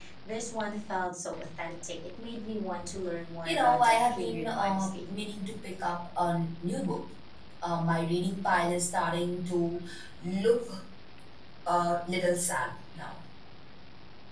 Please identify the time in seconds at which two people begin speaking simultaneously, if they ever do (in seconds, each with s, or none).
3.4 s